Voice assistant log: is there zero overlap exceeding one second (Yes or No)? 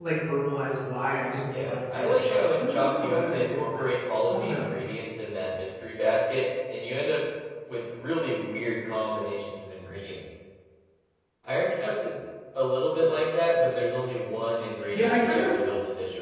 No